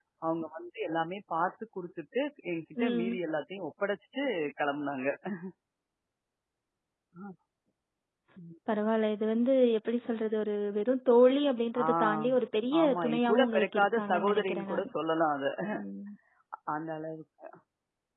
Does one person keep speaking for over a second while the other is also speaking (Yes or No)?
Yes